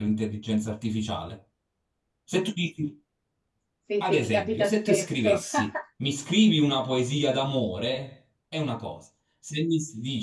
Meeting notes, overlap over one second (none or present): present